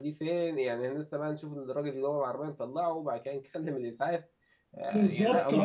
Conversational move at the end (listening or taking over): taking over